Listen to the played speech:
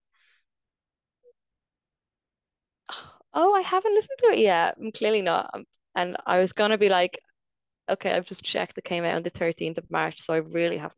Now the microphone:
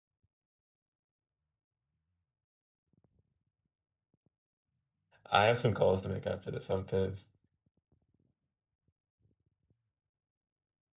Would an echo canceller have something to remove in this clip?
No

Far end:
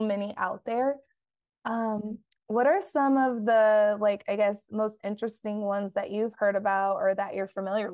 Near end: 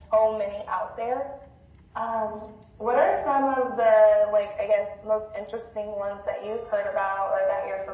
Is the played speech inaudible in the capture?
No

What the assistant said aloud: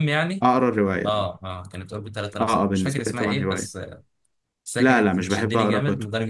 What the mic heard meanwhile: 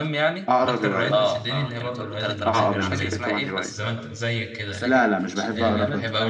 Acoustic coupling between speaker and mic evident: Yes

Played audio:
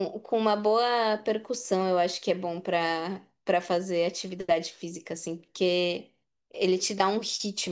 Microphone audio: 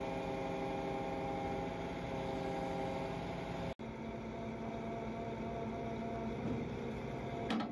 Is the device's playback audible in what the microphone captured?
No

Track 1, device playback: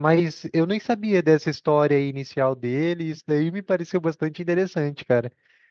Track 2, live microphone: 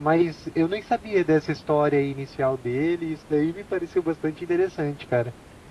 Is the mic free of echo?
No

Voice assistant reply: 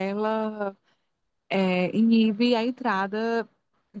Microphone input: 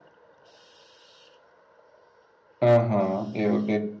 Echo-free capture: Yes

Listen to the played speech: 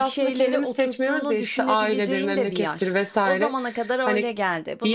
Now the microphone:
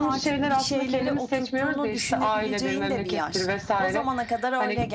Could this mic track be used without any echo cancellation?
No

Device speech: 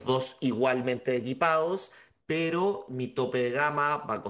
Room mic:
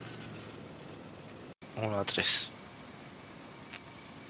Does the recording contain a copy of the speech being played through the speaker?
No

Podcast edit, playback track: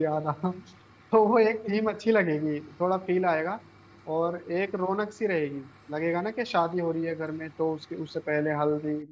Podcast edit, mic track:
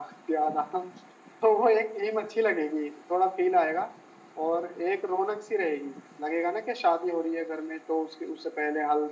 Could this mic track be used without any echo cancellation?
No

